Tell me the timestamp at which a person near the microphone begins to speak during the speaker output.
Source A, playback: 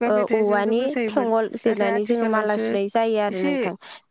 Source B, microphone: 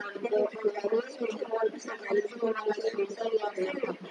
none

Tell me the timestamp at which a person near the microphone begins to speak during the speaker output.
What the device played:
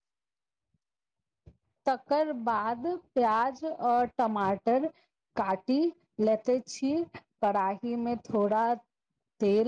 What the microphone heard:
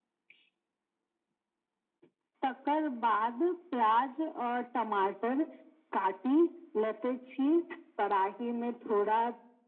none

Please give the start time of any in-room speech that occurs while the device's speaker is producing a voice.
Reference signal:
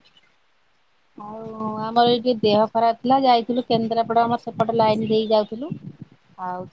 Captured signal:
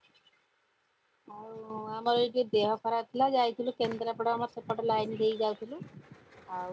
none

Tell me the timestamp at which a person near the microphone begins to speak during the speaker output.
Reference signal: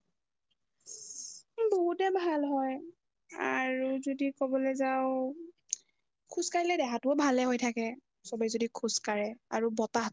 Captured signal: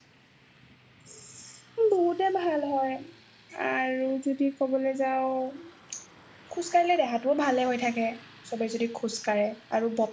none

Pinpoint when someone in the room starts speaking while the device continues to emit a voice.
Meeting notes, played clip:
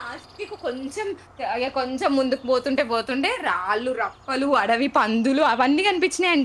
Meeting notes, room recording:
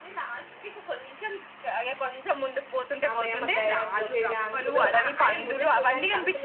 3.1 s

